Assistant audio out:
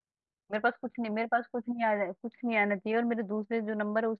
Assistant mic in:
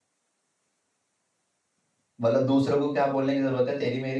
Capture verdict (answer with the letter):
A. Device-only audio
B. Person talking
B